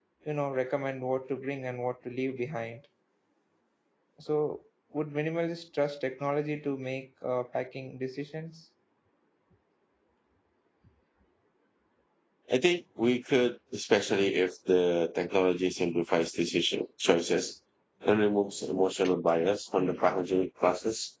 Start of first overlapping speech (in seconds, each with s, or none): none